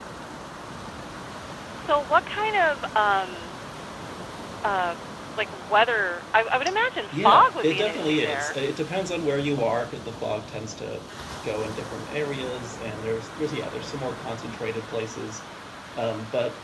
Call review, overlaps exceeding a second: present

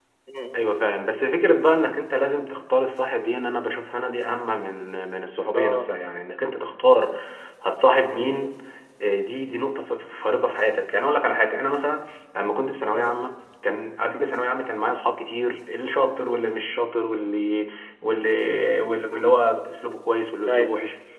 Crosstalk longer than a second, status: none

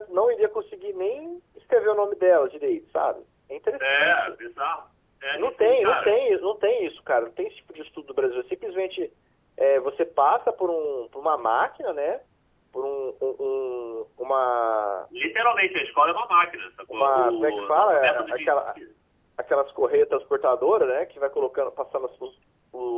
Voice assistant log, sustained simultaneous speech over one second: present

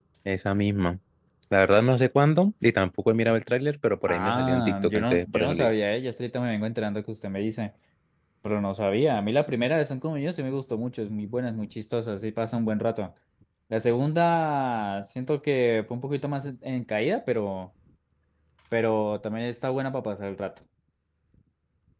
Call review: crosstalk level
present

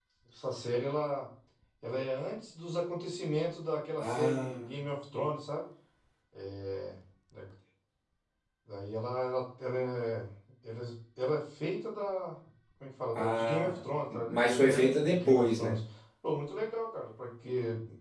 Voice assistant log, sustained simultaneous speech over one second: present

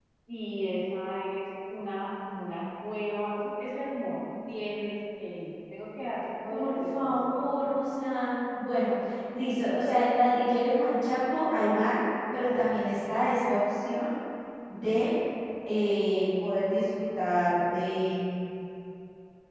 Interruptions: present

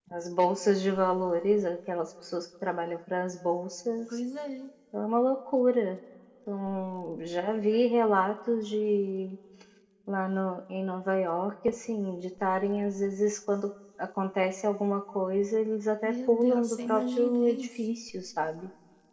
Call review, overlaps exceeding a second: present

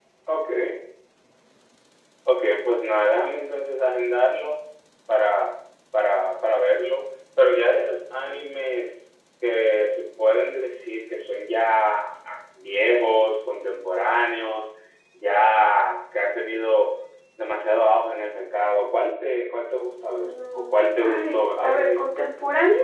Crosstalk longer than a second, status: present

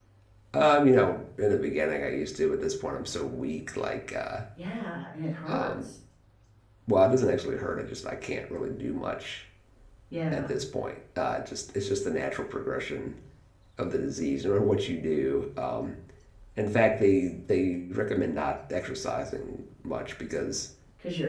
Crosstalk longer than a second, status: none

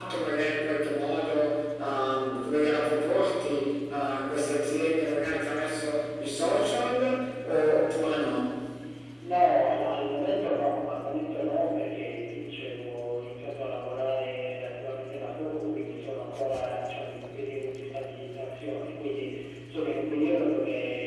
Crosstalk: none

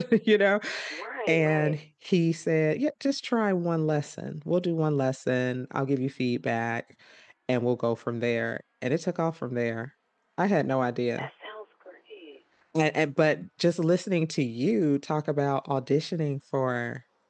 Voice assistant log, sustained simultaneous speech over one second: none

